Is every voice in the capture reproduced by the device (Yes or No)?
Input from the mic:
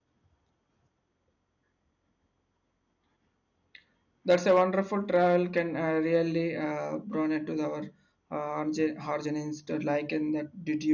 No